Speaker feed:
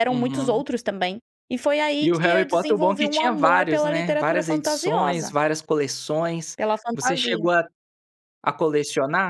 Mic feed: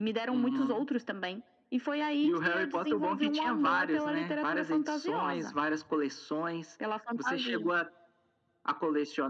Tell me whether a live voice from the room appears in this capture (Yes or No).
No